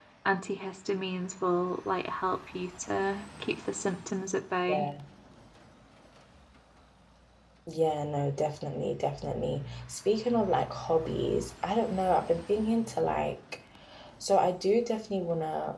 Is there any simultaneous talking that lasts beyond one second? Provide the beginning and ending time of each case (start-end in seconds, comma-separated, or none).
none